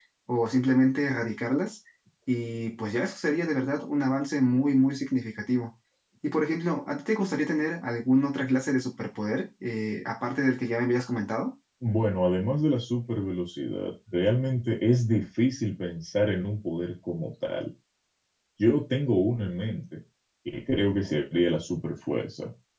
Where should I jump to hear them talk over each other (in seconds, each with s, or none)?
none